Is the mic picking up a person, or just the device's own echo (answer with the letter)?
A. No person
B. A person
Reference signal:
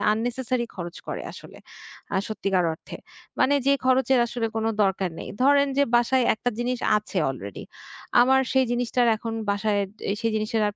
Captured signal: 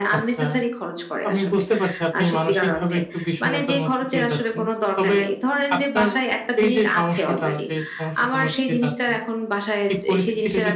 B